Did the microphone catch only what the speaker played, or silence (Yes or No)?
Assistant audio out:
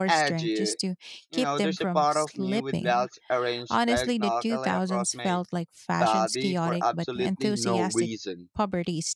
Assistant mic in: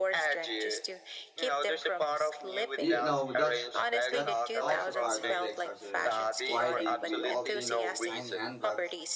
No